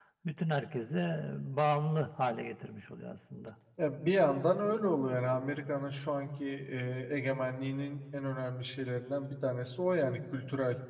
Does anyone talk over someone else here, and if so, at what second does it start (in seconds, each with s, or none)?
none